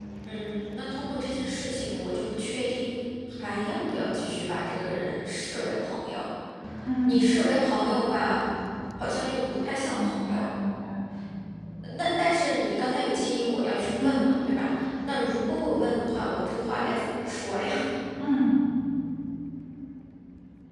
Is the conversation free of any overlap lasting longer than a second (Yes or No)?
Yes